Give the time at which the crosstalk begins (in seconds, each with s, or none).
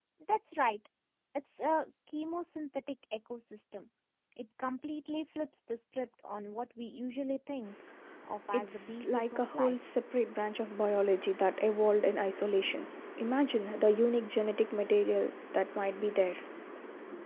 8.5 s